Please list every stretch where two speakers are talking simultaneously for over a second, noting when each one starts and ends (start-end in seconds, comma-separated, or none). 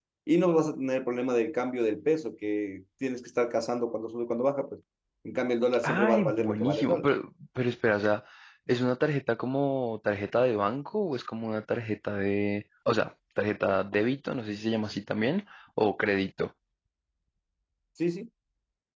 5.8-7.1